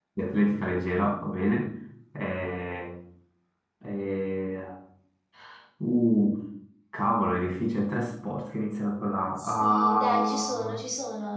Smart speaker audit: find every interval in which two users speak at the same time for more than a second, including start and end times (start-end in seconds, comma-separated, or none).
9.3-10.8